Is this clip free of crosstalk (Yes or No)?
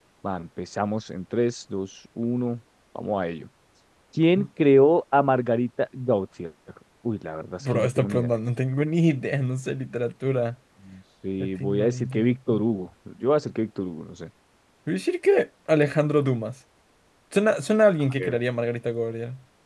No